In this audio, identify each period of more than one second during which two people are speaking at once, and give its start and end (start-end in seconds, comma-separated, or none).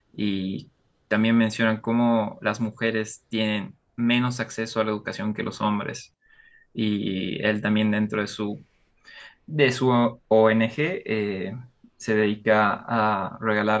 none